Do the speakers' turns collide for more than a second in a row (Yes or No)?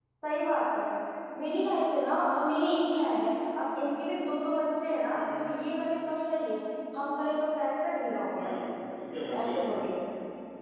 No